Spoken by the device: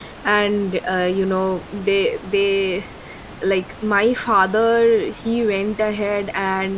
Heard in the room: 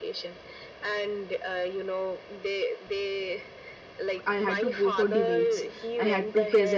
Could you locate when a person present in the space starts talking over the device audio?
4.2 s

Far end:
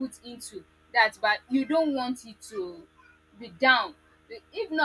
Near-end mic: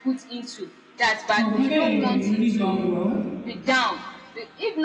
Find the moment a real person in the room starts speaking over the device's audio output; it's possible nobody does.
1.4 s

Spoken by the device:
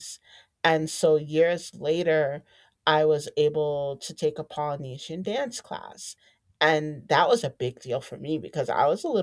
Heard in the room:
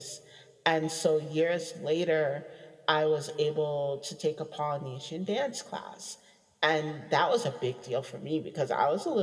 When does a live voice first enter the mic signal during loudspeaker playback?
none

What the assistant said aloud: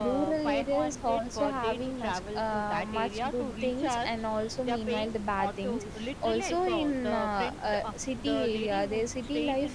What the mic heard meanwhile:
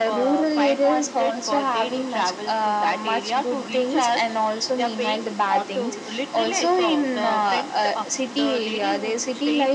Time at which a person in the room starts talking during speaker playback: none

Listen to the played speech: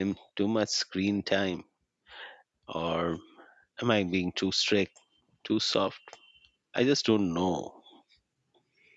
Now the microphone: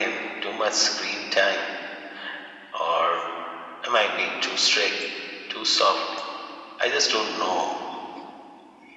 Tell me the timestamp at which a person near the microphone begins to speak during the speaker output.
none

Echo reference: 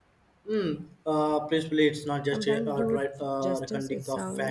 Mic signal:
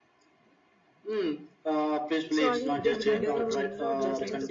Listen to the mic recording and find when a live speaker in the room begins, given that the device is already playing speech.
2.3 s

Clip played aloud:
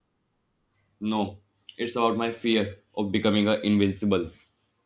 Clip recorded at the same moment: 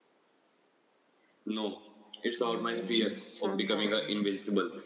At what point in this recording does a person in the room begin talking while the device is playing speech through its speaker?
2.4 s

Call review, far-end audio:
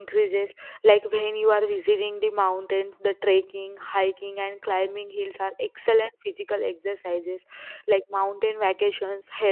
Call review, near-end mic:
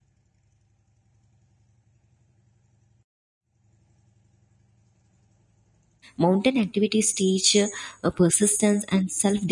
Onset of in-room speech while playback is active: 6.2 s

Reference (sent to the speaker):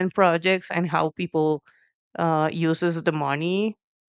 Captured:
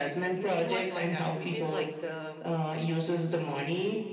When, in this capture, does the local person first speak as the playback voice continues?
0.4 s

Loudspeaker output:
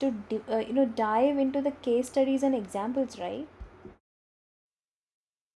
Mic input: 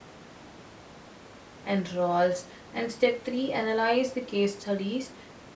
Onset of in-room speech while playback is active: 1.6 s

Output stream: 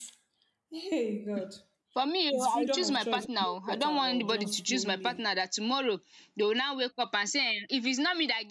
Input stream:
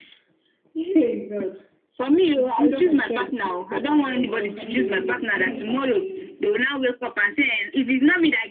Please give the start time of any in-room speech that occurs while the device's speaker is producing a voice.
4.5 s

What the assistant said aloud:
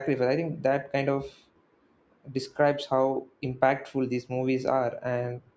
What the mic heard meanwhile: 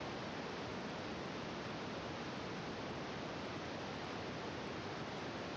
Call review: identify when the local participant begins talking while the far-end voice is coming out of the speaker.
none

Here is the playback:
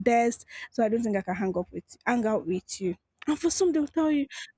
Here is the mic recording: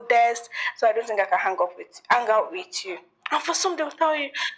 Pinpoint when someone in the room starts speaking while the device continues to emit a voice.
none

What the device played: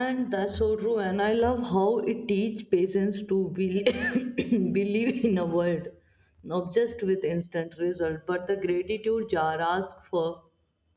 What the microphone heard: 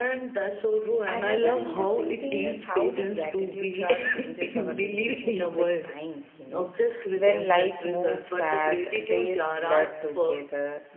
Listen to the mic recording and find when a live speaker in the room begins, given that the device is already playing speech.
1.1 s

